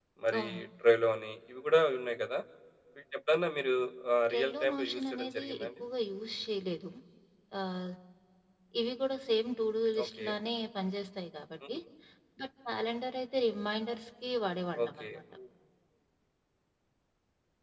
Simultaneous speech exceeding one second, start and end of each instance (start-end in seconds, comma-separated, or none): 4.3-5.7